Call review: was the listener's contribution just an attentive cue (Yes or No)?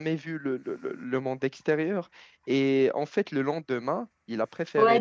No